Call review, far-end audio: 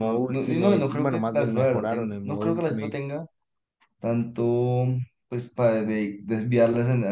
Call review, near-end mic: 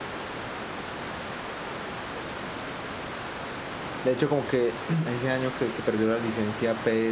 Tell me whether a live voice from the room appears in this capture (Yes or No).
Yes